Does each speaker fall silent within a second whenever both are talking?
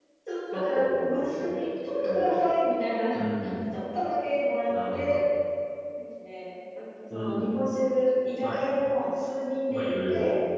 No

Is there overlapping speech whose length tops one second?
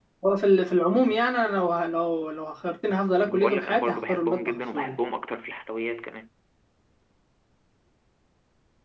Yes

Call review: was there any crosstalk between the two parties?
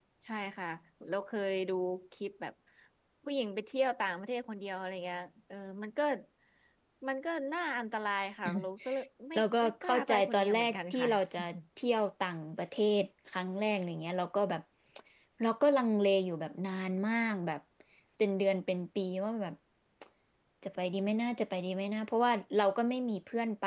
Yes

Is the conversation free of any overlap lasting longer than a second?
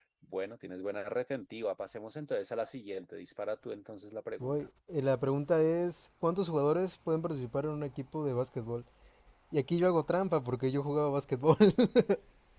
Yes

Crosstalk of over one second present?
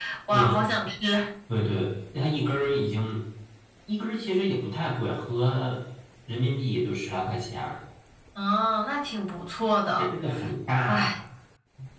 No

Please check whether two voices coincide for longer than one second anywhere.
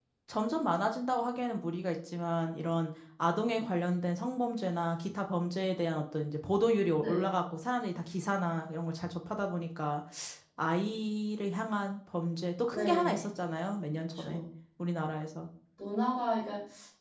No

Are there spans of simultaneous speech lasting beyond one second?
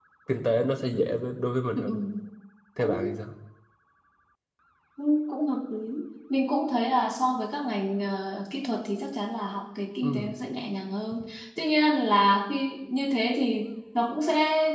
No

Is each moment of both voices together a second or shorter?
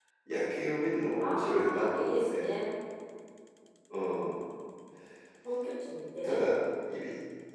No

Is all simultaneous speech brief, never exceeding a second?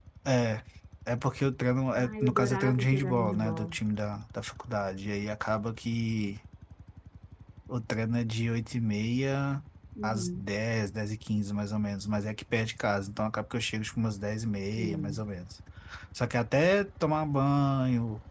No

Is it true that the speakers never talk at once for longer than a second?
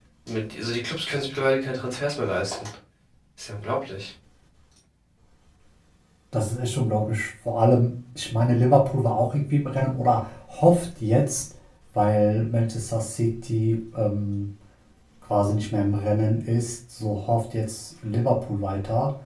Yes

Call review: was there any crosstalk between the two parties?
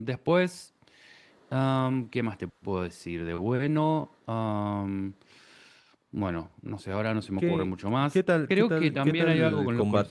Yes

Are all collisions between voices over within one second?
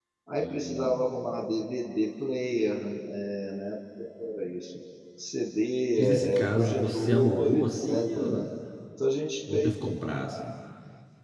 No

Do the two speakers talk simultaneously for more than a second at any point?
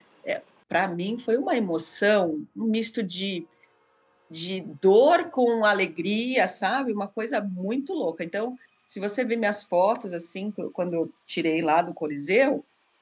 No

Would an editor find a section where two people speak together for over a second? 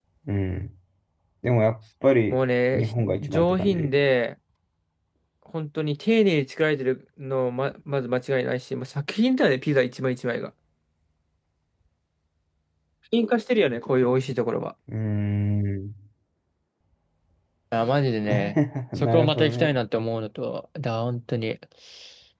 Yes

